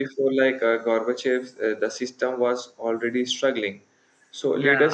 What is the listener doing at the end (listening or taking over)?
listening